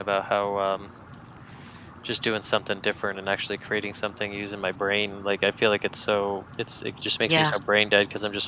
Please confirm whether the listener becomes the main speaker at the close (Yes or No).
No